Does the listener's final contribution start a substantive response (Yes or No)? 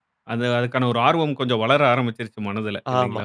Yes